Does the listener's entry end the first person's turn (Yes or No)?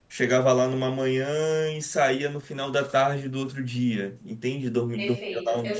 Yes